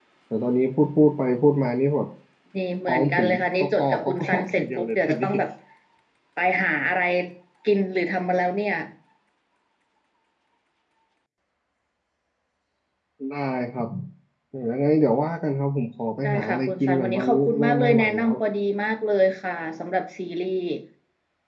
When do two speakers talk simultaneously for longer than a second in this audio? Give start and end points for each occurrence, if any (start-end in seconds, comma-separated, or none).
2.9-5.3, 16.2-18.3